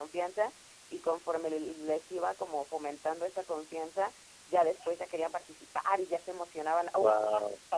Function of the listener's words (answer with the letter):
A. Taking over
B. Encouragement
B